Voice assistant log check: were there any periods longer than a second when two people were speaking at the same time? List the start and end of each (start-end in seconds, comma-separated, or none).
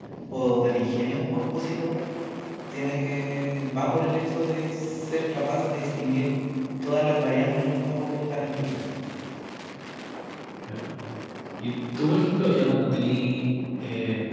none